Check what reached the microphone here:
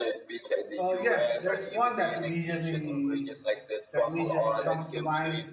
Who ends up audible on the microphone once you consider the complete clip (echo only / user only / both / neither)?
both